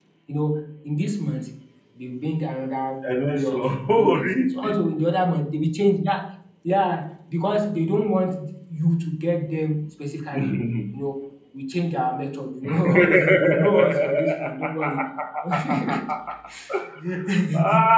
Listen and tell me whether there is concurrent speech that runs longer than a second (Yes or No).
Yes